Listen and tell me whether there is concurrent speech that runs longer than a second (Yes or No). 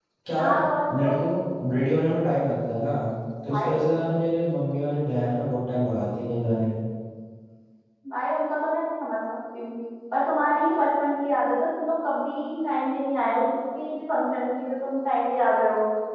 No